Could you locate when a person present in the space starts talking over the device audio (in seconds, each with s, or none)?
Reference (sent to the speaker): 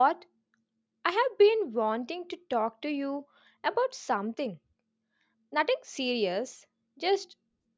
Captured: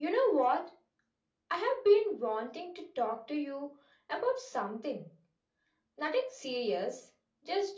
none